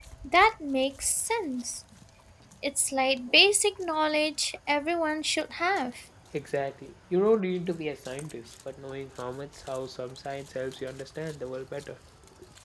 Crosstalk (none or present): none